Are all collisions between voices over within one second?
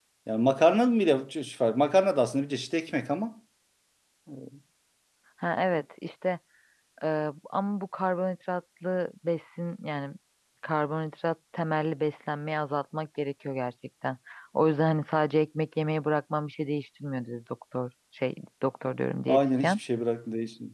Yes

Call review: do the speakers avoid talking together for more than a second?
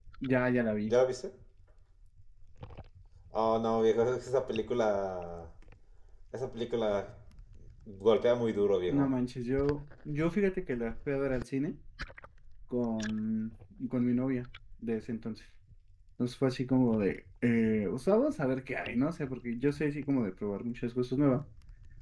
Yes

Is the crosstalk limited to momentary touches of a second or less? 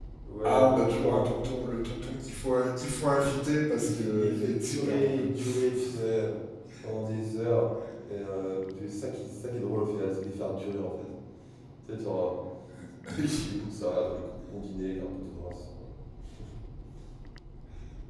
No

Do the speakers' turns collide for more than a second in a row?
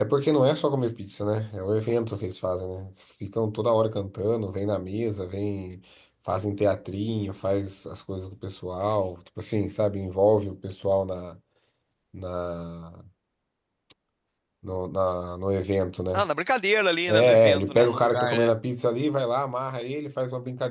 Yes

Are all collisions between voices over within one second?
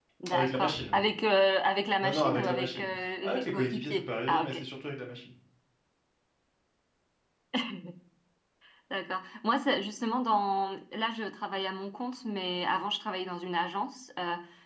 No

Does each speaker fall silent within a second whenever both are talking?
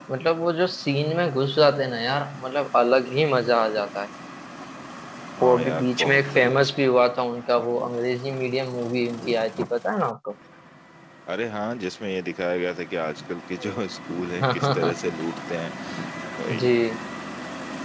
No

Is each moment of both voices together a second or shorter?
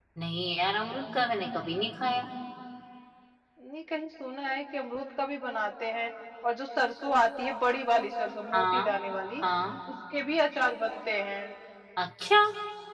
Yes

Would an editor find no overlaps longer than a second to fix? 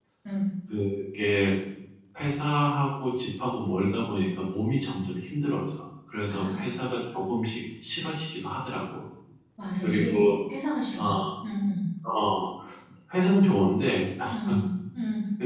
Yes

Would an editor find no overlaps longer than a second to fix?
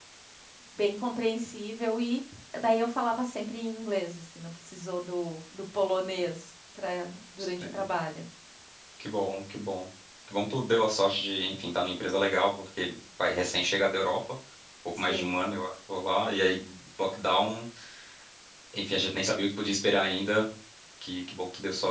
Yes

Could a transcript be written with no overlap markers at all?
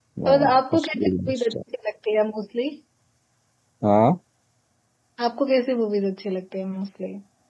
No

